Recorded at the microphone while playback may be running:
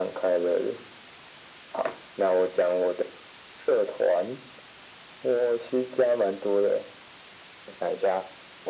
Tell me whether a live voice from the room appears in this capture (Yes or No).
No